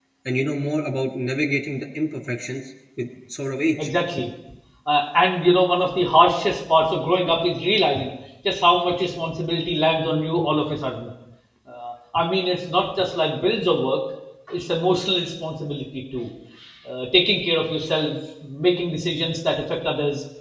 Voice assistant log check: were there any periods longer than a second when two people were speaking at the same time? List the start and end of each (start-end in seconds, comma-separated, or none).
none